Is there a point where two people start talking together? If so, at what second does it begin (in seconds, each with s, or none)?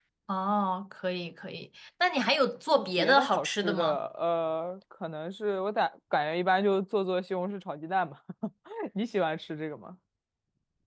2.7 s